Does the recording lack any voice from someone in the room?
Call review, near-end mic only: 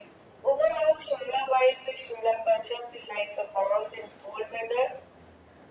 Yes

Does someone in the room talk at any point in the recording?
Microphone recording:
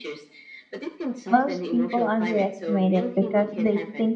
Yes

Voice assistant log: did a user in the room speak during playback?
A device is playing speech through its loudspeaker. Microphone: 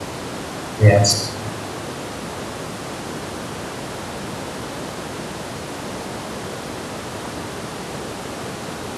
Yes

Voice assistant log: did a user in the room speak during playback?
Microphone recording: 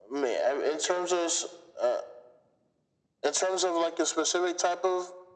No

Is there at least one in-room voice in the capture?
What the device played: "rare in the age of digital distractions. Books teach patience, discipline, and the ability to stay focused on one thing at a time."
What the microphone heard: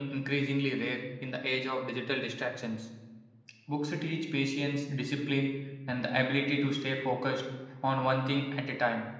No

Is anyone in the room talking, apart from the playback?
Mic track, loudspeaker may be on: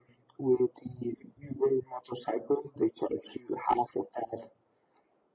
No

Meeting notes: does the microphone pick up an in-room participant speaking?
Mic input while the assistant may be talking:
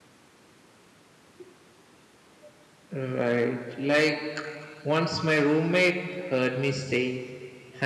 Yes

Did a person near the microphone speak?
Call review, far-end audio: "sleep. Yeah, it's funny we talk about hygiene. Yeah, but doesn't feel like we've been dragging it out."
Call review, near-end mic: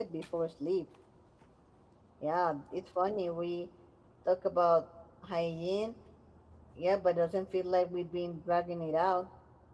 No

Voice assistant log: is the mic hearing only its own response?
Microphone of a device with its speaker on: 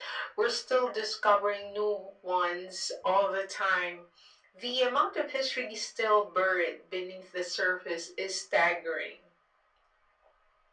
Yes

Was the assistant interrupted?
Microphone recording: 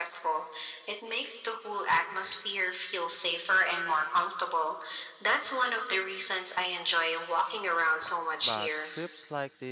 Yes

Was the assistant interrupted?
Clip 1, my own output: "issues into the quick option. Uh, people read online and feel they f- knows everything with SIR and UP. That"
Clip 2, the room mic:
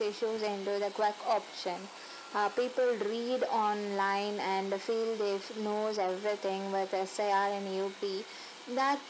No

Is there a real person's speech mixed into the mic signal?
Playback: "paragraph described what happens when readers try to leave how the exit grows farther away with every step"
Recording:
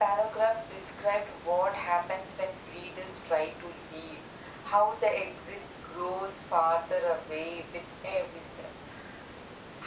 No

